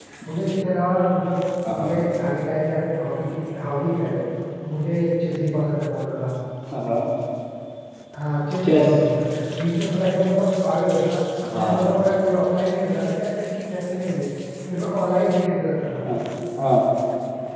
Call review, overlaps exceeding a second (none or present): none